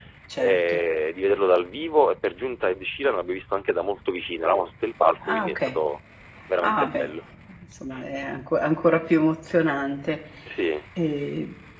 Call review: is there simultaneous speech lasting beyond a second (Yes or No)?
No